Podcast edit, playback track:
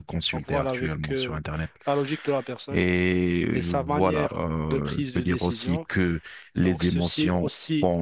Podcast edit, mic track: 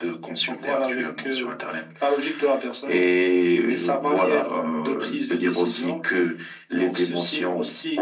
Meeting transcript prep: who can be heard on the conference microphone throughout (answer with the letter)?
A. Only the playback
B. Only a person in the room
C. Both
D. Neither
A